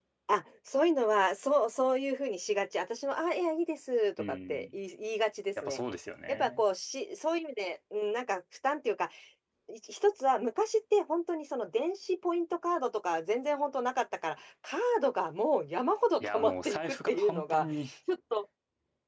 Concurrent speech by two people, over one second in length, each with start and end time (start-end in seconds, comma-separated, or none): 16.2-17.7